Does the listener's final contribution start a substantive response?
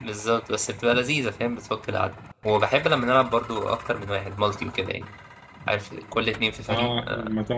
Yes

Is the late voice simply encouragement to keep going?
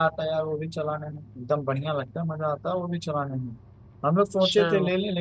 Yes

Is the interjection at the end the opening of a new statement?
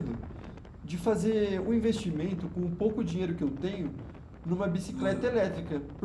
No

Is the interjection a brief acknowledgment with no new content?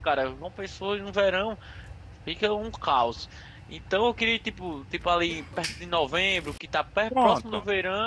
Yes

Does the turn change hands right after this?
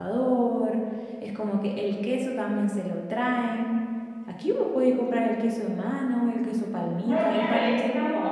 Yes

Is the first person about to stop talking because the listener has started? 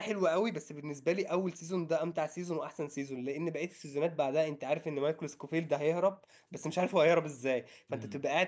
No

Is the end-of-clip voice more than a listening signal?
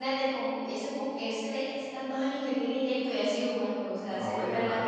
Yes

